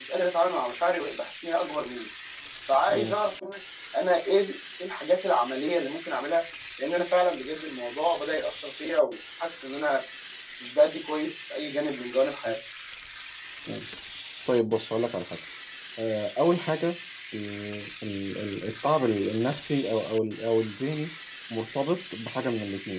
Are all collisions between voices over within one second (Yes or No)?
Yes